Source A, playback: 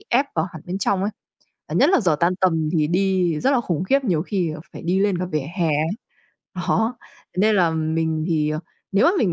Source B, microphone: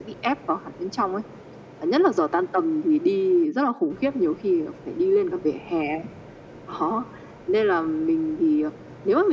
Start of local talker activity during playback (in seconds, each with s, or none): none